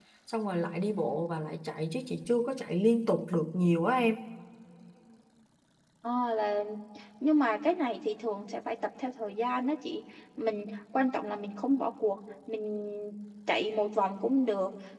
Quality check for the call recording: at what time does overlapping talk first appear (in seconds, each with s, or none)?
none